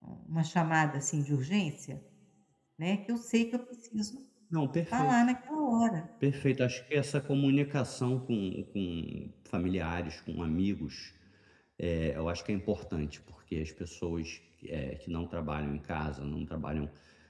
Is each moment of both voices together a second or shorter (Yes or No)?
Yes